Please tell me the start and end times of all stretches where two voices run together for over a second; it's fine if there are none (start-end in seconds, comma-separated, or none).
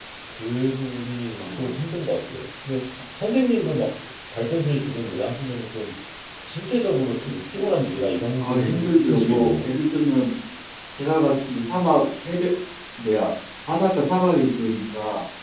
8.4-9.7